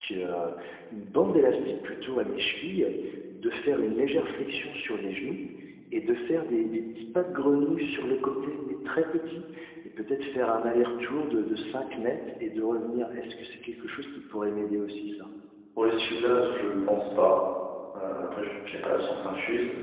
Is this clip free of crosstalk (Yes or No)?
Yes